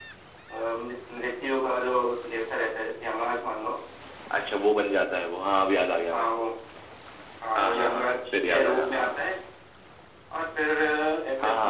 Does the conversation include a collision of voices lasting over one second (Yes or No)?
Yes